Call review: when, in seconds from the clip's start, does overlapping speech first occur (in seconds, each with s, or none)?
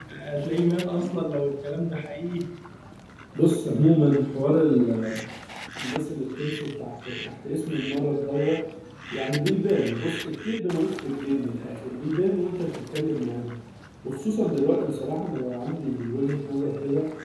none